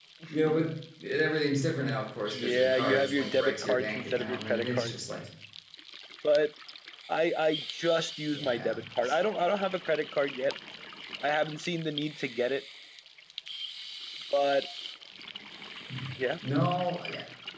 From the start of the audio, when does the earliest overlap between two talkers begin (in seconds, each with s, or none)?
2.3 s